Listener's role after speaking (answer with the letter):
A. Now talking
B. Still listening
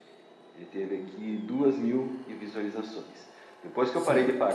B